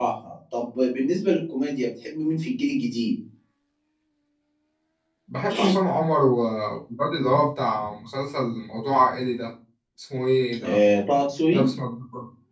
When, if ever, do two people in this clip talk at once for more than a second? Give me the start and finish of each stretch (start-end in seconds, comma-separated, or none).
none